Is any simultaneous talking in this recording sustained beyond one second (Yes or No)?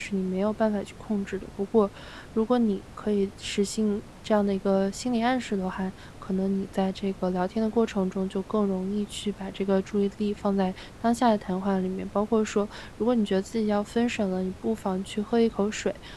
No